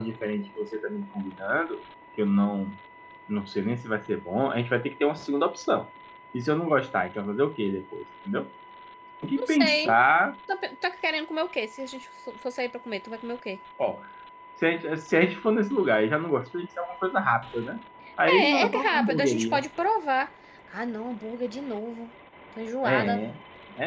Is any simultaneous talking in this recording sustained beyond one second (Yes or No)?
Yes